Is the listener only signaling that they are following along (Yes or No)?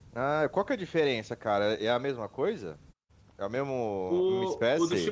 No